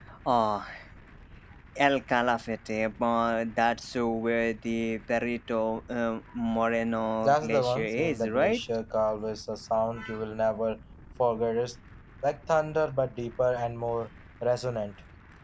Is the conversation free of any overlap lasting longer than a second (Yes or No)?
No